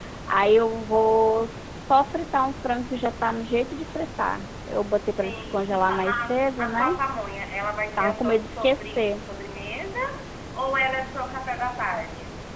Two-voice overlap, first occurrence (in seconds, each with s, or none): 5.1 s